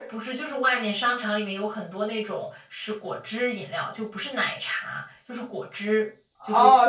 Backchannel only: No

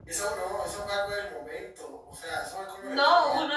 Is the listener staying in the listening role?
No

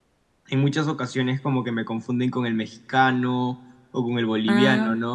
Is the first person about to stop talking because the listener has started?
No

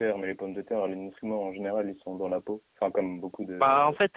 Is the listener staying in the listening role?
No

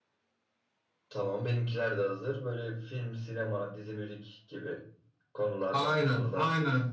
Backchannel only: No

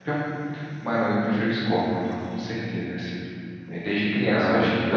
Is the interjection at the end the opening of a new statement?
Yes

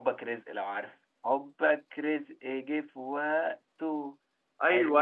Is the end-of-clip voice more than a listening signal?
Yes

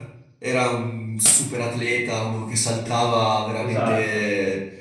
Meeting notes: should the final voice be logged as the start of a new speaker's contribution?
No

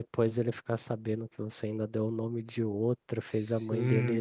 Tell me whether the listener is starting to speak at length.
Yes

